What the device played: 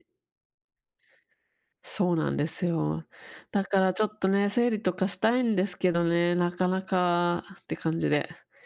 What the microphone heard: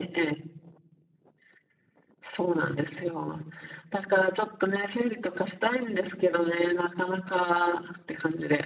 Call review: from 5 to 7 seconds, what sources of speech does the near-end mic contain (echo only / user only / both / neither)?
echo only